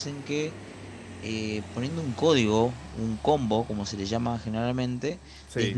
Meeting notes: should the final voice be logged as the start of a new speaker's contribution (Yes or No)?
No